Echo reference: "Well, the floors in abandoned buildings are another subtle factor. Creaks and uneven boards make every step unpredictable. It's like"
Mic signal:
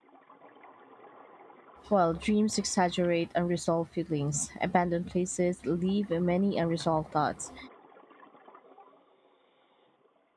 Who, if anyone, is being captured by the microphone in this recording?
user only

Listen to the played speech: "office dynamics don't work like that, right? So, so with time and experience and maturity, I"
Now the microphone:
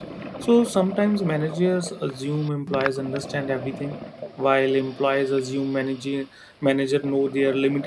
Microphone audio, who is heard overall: user only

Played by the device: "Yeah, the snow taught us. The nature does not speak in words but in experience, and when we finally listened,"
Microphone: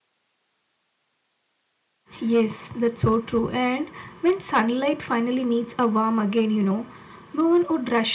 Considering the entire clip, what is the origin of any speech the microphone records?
user only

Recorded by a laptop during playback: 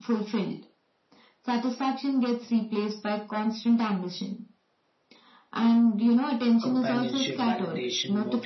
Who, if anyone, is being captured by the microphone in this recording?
both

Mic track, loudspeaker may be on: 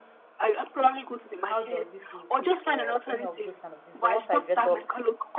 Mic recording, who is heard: both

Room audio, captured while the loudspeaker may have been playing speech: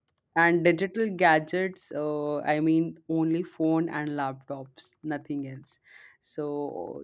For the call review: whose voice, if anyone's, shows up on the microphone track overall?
user only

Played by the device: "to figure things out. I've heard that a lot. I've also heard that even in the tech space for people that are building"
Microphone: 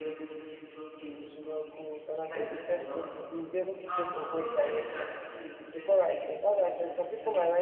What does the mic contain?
both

